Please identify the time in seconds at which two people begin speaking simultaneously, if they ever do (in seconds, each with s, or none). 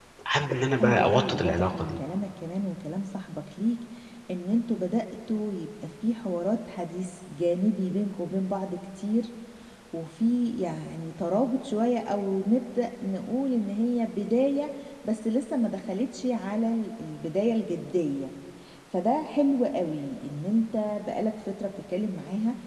0.8 s